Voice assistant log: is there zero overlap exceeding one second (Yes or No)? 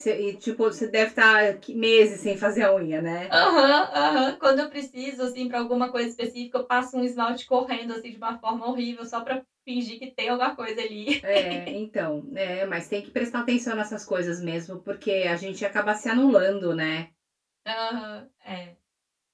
Yes